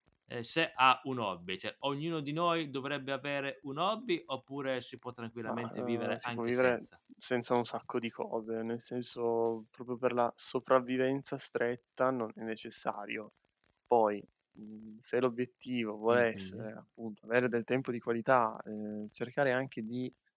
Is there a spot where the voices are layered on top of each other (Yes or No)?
Yes